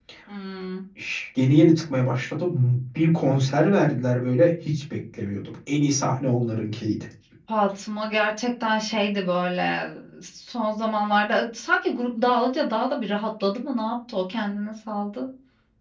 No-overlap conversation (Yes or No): Yes